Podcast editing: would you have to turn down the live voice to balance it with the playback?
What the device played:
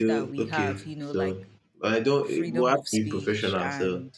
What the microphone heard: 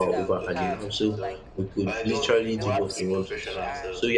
Yes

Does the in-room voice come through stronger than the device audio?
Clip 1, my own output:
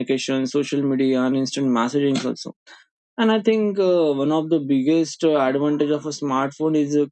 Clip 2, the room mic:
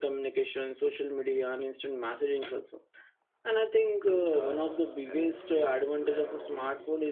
No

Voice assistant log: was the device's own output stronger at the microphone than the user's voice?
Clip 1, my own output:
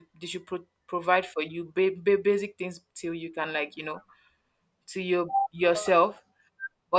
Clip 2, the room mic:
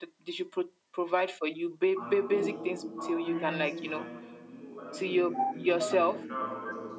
Yes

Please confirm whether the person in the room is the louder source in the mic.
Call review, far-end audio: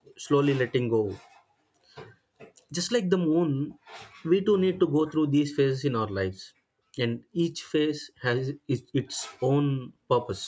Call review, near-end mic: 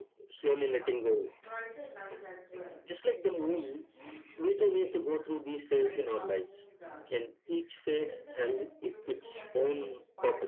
No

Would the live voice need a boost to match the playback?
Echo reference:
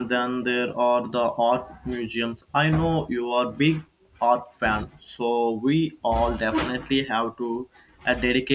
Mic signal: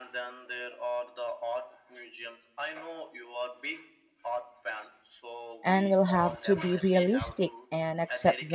No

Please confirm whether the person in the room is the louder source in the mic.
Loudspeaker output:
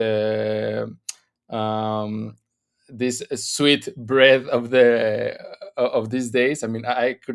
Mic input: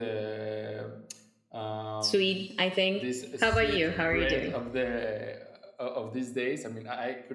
Yes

